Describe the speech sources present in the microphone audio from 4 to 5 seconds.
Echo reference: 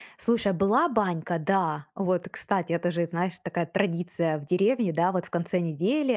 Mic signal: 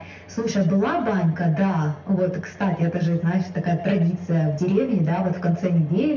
echo only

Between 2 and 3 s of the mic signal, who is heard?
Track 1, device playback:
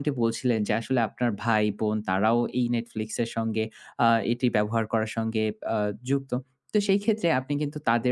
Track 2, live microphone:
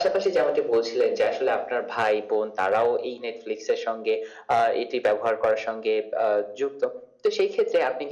echo only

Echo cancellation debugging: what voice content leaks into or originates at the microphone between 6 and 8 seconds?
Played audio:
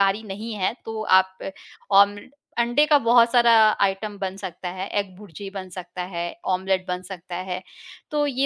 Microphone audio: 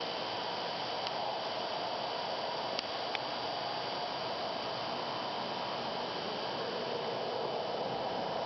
neither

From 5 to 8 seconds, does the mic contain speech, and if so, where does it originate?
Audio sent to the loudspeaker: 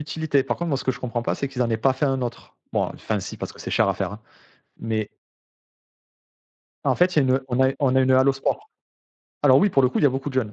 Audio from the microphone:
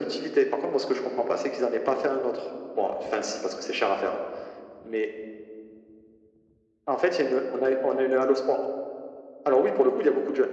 echo only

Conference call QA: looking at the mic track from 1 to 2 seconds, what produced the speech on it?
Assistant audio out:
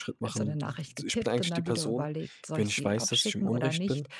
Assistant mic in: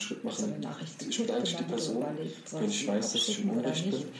echo only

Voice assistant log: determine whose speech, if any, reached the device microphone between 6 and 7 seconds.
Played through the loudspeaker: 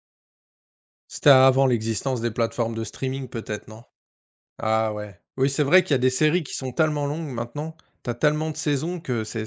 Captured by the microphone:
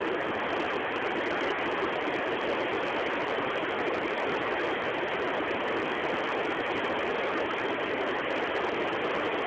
neither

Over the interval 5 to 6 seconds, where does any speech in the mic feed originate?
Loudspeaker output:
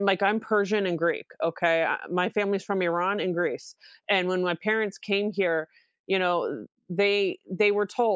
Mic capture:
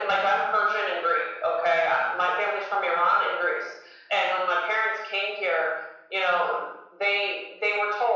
echo only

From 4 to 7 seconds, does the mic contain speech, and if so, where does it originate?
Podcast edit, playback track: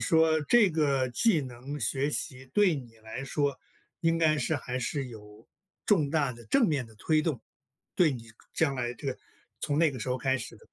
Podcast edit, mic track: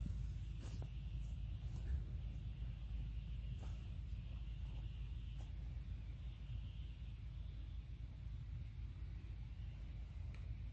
neither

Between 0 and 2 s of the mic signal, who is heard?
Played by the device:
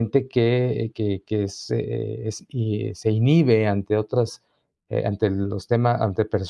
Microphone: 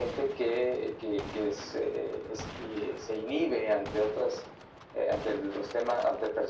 echo only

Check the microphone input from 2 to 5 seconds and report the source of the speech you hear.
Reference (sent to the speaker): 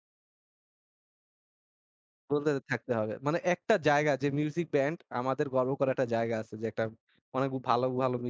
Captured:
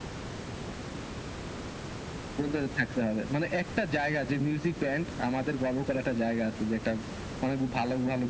echo only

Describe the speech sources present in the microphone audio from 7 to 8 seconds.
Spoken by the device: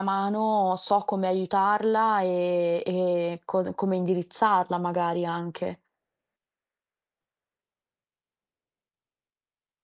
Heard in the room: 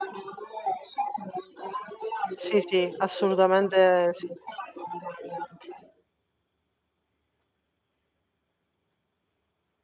neither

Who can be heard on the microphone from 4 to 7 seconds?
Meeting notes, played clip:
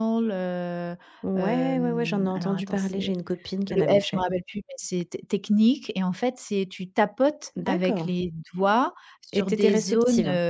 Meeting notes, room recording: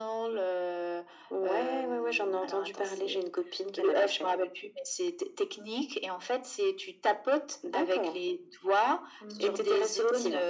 echo only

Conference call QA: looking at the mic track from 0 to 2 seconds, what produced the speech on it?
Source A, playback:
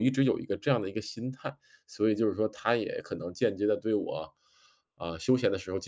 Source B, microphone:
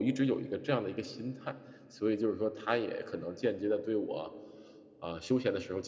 echo only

